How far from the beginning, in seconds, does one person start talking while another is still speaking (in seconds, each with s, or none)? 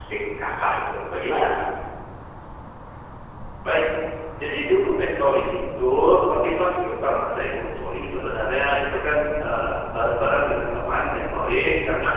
none